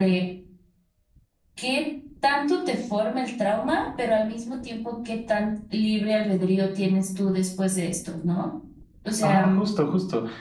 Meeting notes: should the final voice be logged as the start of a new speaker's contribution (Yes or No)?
Yes